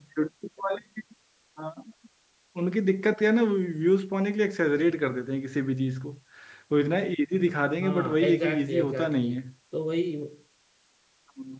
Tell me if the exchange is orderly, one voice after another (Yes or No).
No